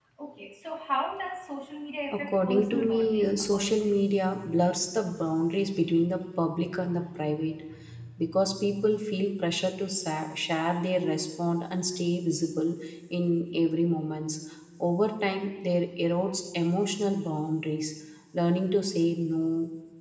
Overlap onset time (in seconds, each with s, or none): 2.1 s